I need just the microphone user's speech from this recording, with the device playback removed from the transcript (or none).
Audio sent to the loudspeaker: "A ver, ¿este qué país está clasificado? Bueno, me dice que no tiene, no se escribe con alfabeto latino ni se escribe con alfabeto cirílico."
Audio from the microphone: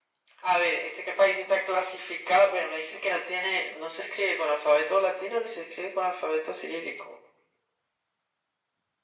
none